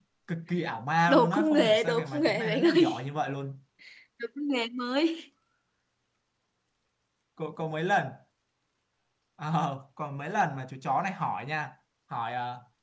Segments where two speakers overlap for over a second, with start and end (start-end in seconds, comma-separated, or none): 1.1-3.0